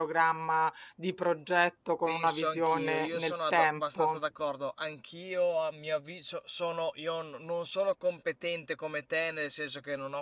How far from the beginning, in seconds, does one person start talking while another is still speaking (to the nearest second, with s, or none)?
2 s